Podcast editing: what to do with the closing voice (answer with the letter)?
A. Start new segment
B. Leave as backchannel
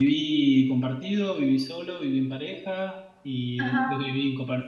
B